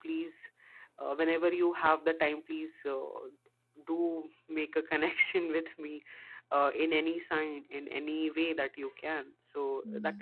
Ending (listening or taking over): listening